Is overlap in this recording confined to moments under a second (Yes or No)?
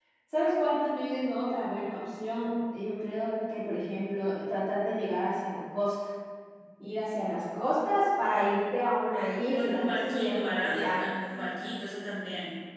No